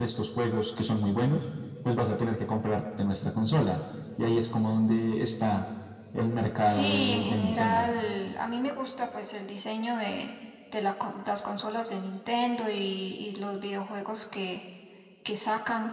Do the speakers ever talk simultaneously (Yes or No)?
Yes